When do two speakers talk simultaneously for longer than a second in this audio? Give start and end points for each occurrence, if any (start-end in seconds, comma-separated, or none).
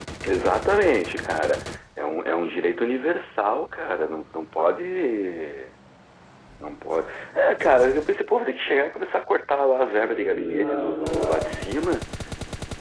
9.9-11.5